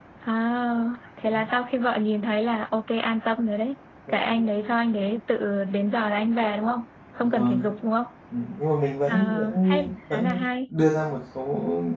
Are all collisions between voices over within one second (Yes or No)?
No